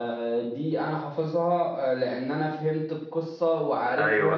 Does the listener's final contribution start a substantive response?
Yes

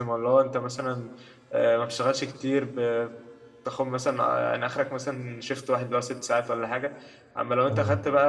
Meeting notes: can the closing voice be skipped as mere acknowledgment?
Yes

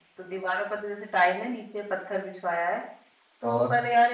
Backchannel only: Yes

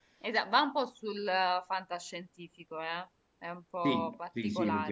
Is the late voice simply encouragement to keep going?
No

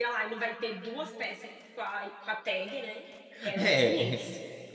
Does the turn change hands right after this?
Yes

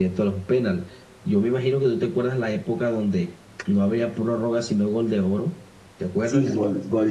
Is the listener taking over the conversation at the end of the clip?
Yes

